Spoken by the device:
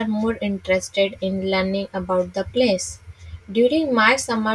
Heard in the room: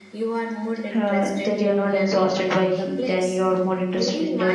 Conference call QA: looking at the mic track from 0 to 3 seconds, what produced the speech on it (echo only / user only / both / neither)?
both